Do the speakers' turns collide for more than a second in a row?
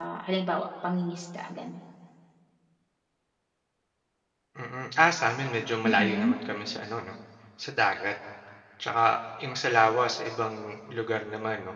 No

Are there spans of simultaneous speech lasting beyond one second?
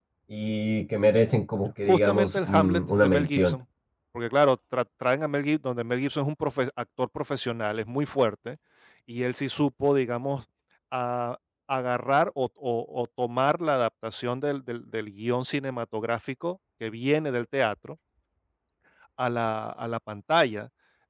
Yes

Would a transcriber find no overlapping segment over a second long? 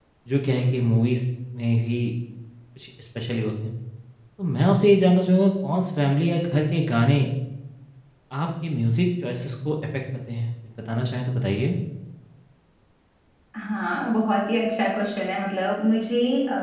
Yes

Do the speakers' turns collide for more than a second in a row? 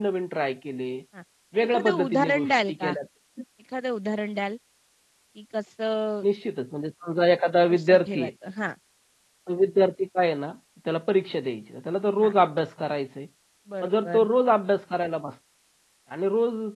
Yes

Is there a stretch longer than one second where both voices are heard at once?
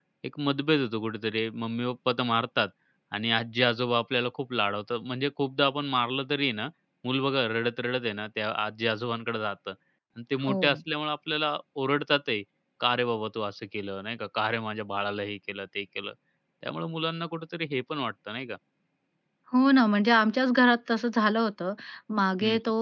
No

